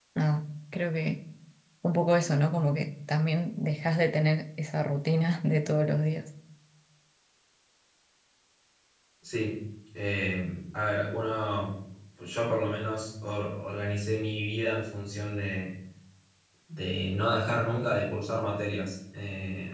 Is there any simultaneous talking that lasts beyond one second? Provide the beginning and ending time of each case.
none

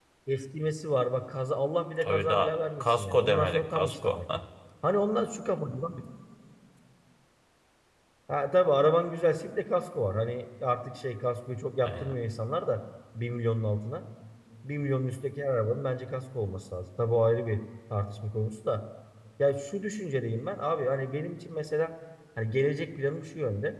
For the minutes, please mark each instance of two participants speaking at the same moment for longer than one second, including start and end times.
2.0-4.2

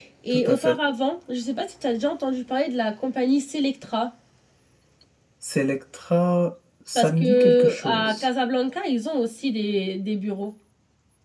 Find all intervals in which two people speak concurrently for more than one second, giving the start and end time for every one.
7.0-8.2

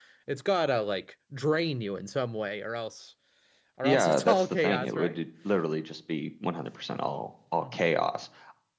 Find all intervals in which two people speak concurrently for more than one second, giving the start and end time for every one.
3.8-5.2

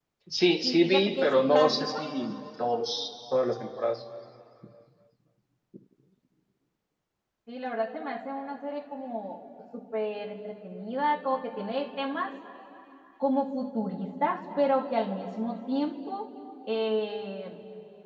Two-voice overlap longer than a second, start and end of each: 0.6-1.9

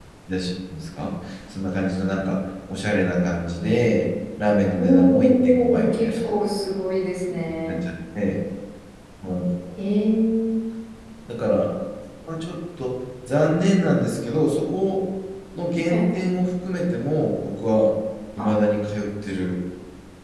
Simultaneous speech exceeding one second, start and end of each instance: 4.8-6.1

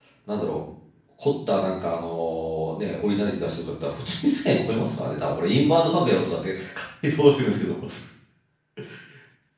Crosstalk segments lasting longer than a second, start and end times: none

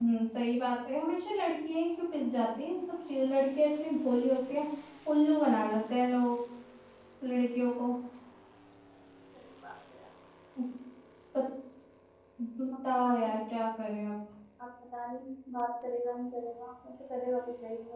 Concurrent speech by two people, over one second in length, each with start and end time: none

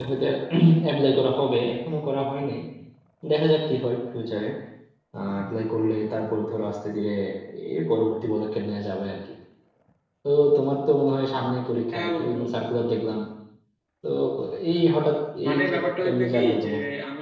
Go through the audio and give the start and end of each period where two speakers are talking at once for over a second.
15.5-16.7

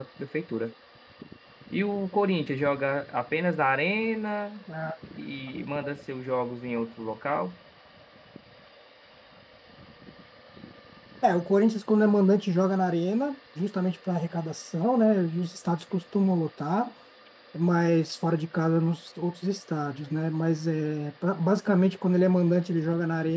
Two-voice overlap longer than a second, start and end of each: none

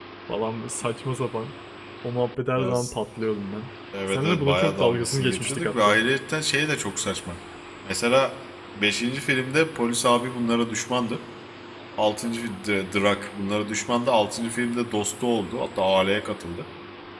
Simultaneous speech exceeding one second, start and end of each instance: 4.1-6.0

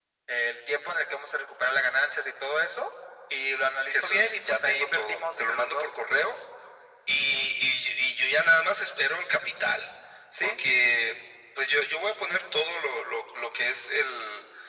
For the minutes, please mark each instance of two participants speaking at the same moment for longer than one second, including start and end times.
3.9-5.9

